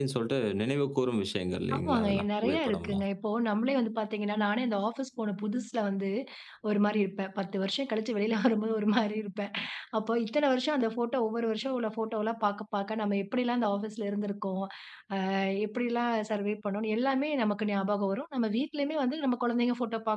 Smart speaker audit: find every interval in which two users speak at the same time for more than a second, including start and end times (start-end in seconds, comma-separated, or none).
1.8-3.0